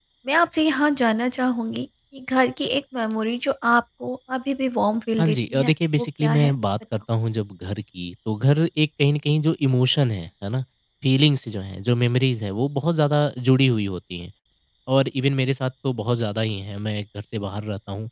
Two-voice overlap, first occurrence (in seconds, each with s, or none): 5.2 s